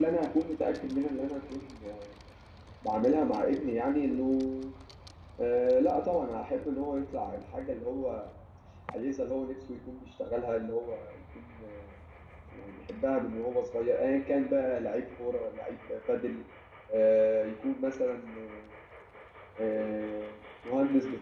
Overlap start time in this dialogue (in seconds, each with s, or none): none